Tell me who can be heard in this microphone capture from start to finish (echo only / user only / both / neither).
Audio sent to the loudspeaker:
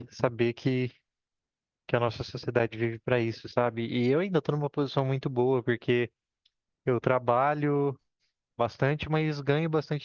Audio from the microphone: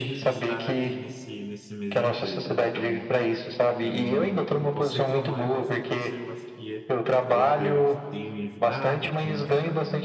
both